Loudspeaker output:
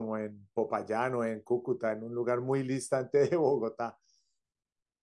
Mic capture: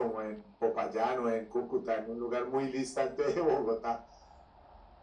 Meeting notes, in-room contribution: none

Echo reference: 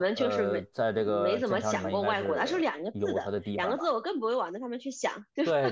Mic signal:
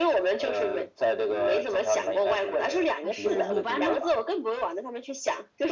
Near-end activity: present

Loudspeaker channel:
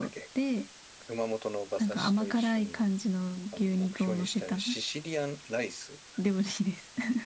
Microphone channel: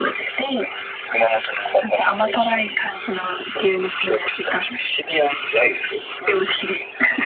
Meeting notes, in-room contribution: none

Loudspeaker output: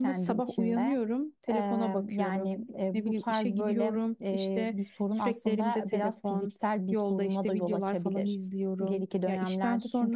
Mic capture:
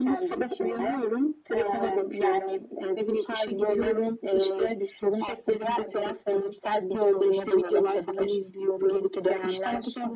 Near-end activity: none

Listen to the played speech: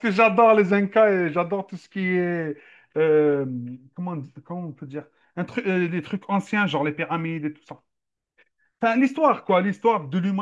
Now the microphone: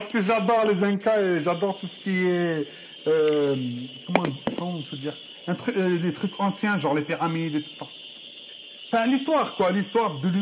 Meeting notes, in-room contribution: none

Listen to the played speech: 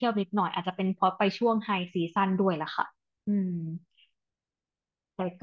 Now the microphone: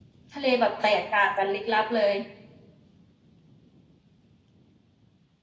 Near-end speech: present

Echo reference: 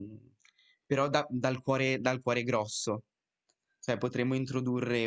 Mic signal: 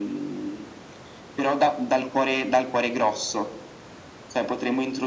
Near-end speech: none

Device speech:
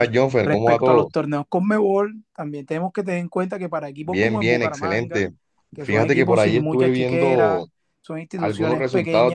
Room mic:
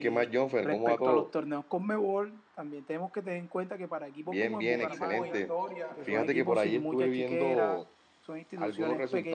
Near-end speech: present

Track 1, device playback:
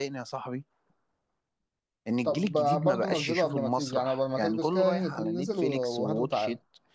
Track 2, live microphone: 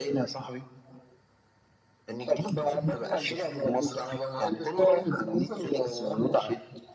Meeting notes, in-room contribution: none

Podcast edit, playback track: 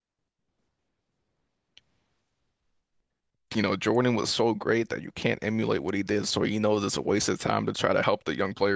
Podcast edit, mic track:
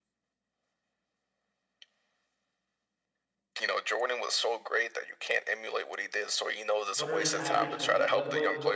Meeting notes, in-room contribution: present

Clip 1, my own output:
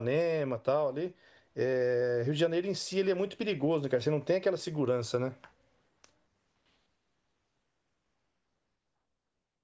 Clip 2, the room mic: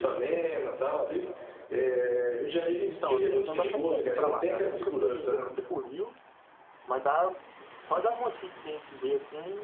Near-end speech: present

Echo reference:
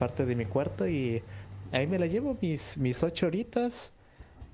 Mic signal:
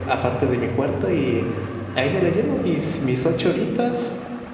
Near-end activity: none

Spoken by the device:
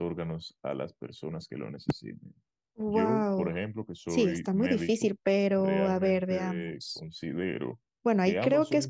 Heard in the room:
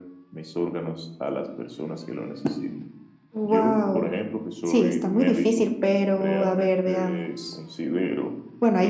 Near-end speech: none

